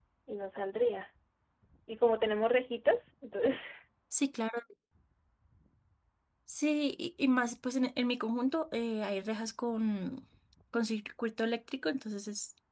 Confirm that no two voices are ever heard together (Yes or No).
Yes